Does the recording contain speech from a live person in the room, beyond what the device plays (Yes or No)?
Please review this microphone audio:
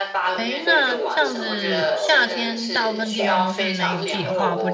Yes